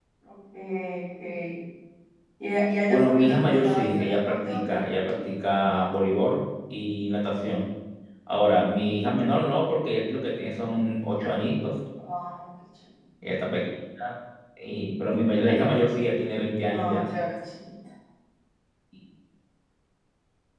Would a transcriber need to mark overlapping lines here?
Yes, from 2.9 s

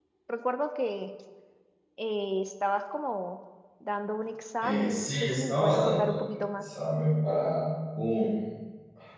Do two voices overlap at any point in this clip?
Yes, from 4.6 s

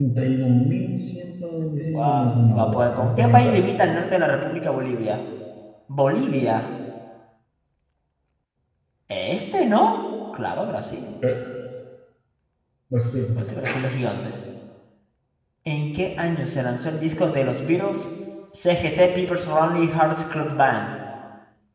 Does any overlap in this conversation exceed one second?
Yes, from 1.9 s

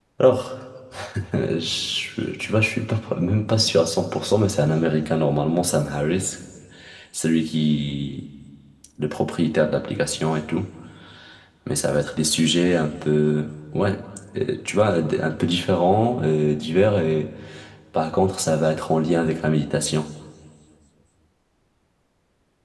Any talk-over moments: No

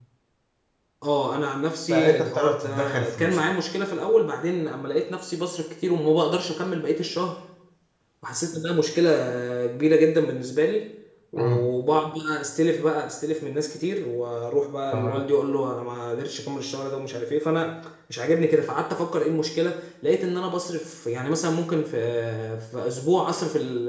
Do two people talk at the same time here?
Yes, from 1.9 s

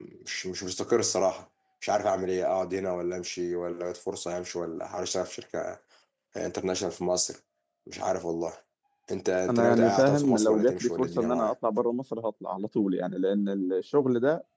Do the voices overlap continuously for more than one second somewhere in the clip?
Yes, from 9.5 s

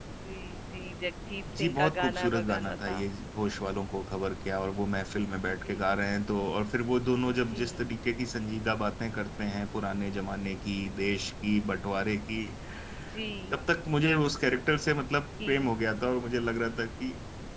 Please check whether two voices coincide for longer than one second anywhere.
Yes, from 1.6 s

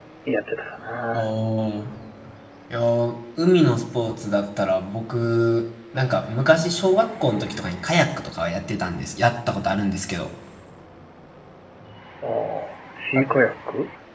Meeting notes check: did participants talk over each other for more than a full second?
No

